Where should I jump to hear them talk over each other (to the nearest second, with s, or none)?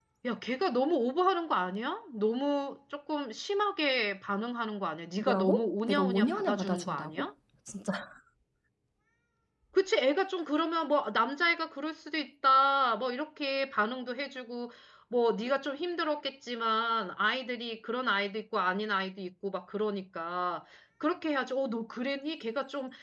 5 s